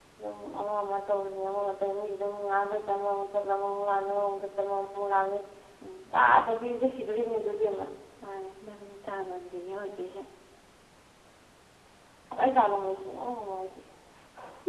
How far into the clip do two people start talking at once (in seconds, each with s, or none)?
none